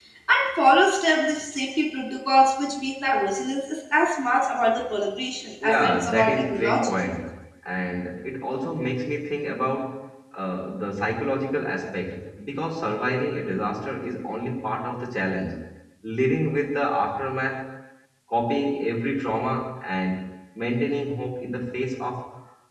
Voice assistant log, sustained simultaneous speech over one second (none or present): present